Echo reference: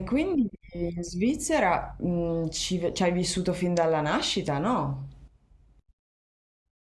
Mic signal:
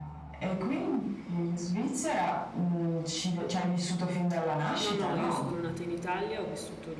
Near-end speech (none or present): present